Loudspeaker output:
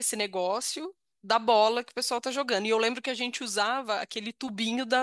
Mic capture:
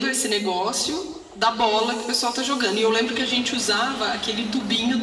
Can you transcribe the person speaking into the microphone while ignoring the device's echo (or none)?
none